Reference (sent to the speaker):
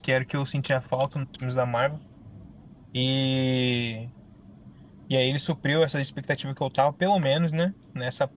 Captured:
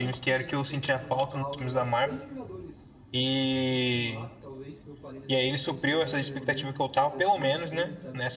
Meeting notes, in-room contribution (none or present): present